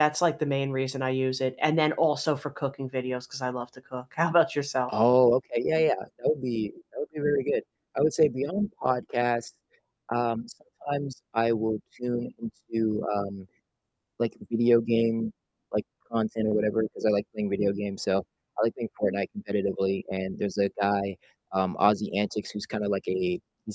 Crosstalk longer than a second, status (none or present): none